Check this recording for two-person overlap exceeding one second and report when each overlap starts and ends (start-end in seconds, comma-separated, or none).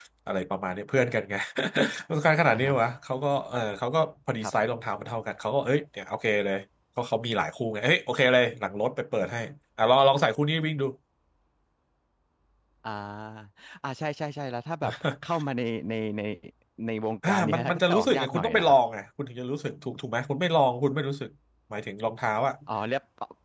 17.3-18.8